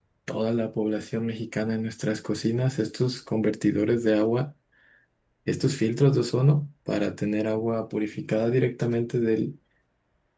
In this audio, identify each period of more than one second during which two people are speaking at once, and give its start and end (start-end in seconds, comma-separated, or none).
none